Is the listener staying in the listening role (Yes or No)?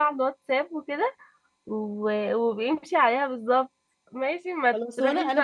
No